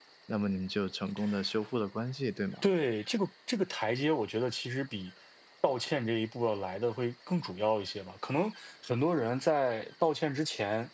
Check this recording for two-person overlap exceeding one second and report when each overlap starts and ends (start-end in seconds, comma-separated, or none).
none